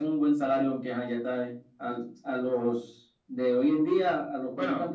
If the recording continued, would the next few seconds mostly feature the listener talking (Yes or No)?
No